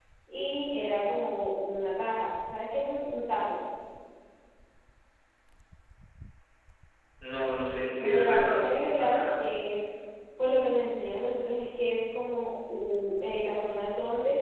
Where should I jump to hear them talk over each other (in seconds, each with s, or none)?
8.0 s